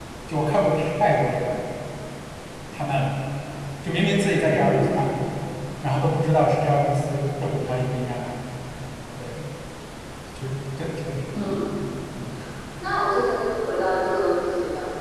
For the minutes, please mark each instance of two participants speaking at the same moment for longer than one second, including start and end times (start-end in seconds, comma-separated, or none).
none